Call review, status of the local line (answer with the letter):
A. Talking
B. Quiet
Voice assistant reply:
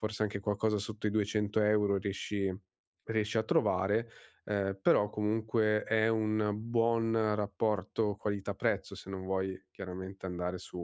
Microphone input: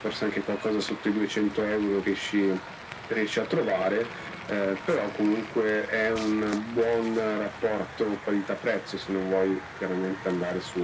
B